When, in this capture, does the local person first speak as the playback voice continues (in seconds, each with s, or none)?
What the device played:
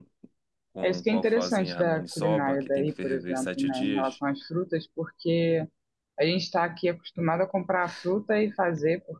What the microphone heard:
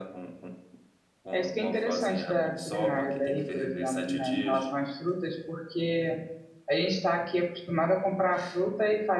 none